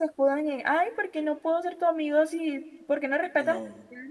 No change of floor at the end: Yes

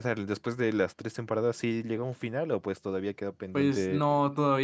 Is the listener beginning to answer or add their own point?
Yes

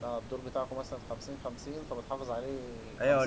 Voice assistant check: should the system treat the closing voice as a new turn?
Yes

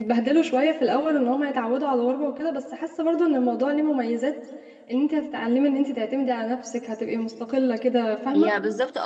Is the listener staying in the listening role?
No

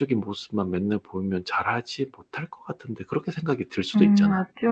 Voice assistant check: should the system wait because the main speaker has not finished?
No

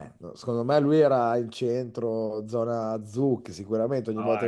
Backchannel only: No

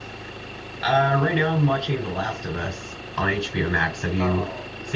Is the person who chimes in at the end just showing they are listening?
No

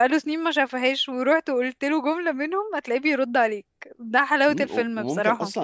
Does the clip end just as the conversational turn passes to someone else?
Yes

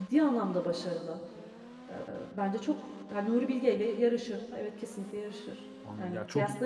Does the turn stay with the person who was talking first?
No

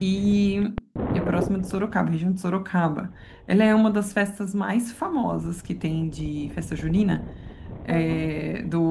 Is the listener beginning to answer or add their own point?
No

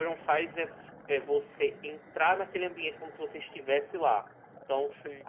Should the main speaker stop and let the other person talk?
No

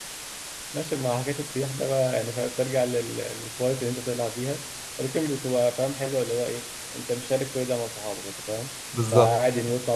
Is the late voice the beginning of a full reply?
No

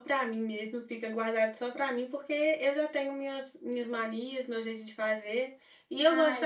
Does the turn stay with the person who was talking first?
Yes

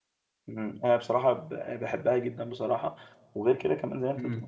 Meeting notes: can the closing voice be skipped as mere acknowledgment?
Yes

